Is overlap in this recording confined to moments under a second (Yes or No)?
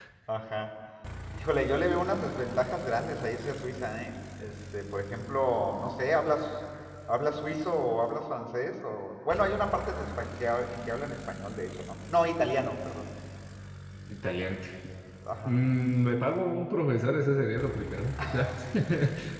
Yes